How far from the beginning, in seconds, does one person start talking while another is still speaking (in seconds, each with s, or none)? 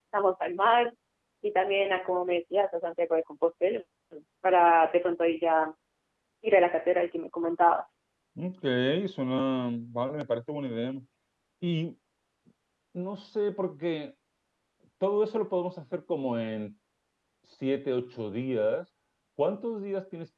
none